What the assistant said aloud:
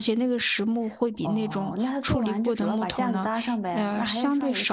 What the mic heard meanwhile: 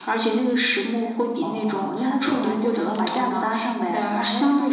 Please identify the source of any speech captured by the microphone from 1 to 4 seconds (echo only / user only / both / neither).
echo only